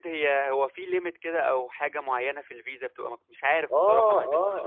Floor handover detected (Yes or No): Yes